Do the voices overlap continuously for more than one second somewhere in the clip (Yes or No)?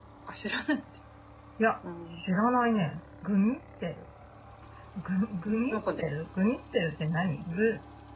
No